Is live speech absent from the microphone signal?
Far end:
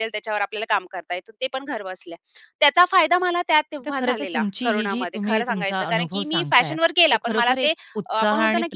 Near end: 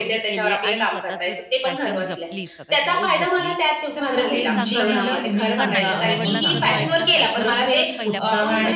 No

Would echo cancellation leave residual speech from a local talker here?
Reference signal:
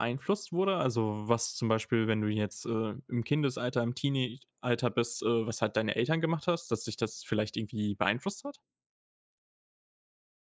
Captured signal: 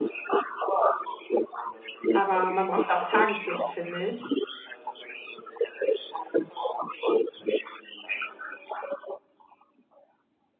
Yes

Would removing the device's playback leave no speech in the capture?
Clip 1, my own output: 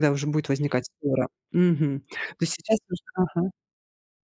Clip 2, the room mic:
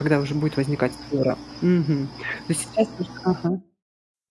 Yes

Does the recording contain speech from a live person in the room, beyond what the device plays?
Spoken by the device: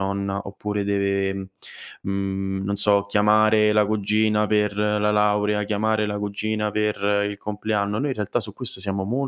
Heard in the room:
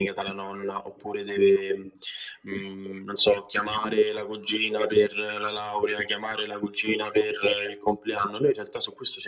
No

